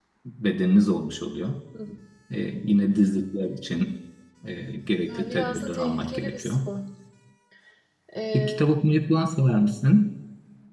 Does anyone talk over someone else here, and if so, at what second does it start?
5.1 s

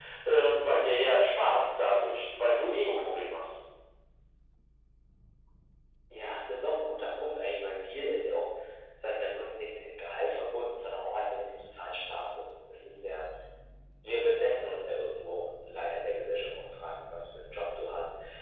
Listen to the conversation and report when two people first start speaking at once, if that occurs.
none

